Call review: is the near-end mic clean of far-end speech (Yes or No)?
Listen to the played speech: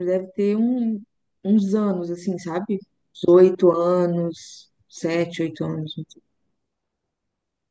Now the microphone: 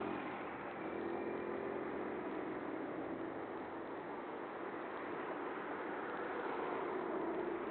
Yes